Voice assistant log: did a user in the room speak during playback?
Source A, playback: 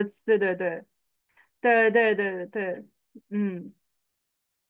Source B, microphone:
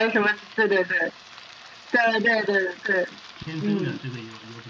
Yes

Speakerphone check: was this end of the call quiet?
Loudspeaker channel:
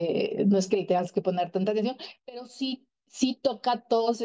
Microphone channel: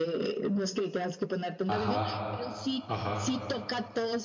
No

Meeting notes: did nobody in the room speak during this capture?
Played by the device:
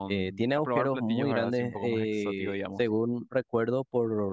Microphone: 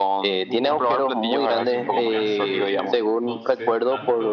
No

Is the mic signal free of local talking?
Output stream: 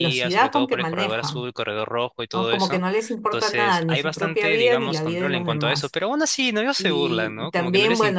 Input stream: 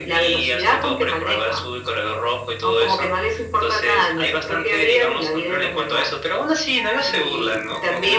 Yes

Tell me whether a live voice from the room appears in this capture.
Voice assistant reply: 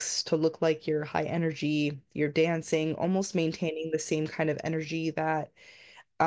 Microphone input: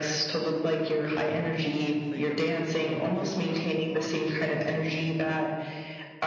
Yes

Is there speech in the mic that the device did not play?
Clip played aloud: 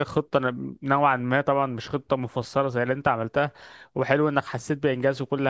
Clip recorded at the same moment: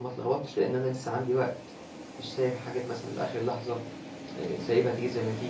Yes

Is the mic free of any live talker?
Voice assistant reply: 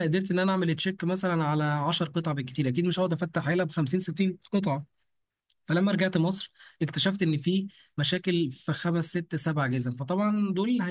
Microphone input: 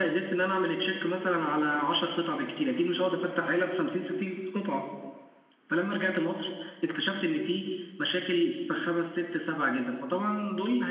No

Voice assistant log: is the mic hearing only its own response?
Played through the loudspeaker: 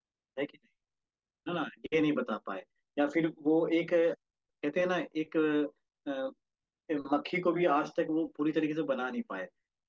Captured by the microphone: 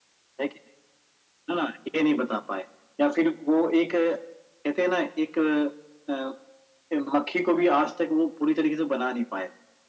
Yes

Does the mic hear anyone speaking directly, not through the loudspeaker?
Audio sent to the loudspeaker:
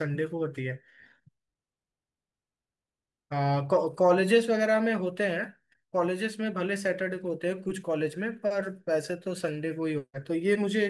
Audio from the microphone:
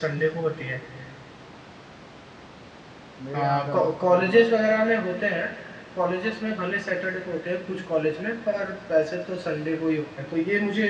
Yes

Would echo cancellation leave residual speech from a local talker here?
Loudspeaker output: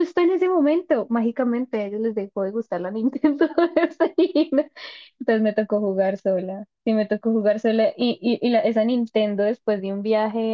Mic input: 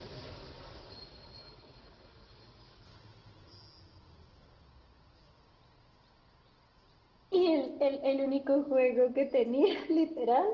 Yes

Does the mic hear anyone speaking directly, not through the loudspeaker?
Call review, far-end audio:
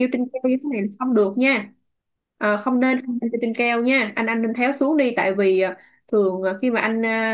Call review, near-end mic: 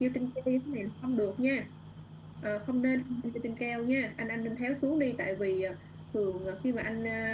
No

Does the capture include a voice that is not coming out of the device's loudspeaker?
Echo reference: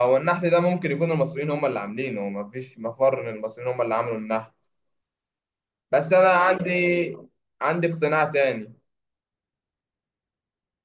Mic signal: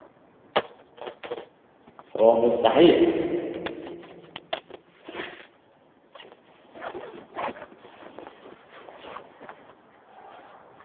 Yes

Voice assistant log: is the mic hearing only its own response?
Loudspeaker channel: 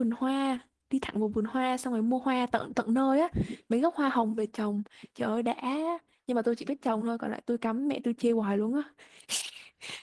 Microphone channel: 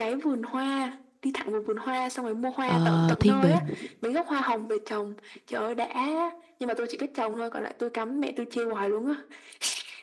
No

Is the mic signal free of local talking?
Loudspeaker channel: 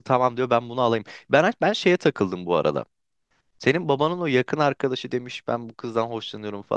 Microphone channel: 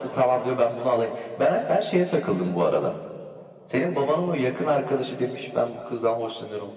Yes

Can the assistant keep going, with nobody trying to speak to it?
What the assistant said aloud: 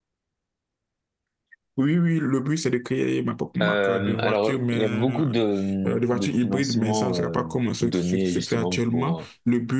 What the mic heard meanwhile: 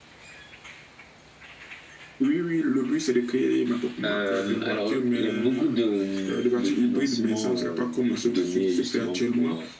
Yes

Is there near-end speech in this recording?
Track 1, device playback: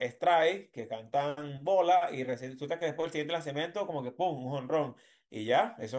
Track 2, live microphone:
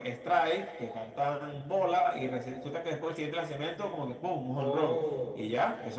Yes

